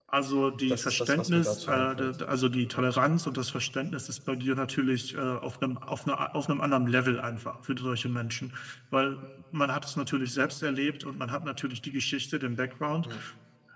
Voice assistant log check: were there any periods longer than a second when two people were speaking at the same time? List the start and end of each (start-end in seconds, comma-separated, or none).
0.7-2.1